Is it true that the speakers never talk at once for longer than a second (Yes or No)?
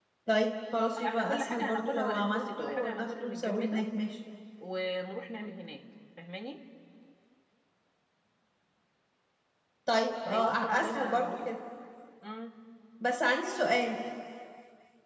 No